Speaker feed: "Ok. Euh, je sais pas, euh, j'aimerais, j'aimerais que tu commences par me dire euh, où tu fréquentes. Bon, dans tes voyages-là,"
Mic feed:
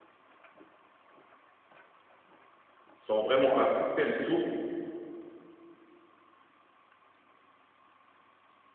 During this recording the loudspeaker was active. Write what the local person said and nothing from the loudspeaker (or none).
sont vraiment à couper le souffle.